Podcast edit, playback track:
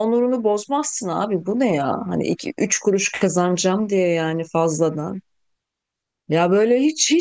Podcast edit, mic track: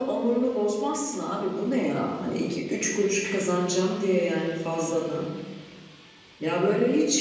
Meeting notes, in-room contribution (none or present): none